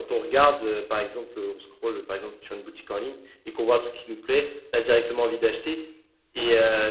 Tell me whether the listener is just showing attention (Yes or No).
Yes